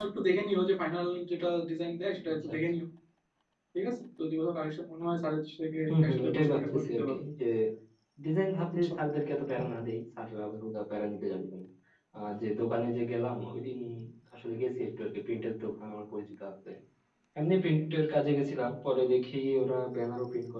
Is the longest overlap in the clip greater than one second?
Yes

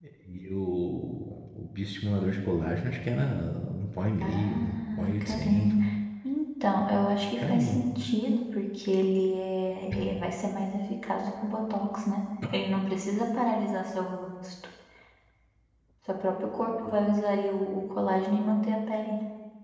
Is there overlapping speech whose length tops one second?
Yes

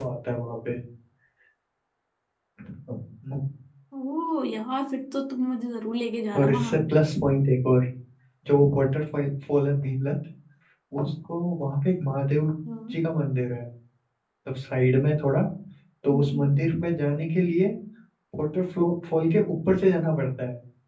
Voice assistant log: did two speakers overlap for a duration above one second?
No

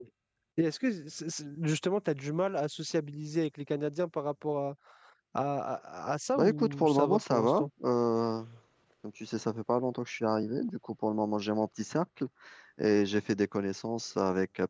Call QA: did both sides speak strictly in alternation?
No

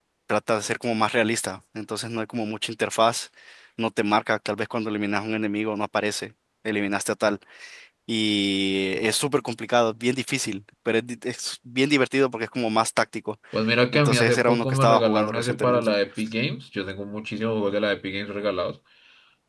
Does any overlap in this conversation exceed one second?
Yes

